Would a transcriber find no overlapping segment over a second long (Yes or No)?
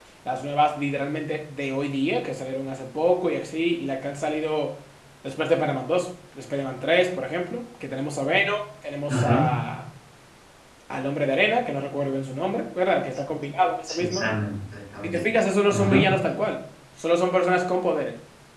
Yes